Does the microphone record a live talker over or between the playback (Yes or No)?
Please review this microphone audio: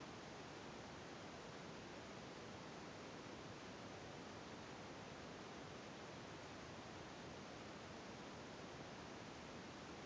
No